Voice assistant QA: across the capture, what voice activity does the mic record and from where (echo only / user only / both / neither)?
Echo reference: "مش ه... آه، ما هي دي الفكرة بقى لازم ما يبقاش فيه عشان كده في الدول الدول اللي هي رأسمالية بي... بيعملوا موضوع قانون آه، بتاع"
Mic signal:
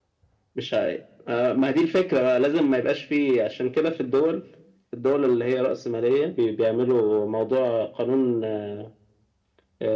echo only